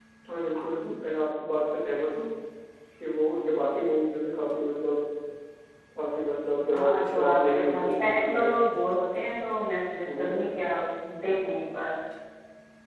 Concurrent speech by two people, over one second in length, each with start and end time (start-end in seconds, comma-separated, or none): 6.7-8.3